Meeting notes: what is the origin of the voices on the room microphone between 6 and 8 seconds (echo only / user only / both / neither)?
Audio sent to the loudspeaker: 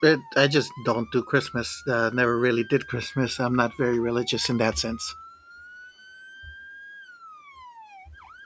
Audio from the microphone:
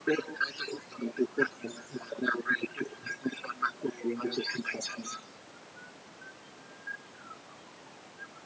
neither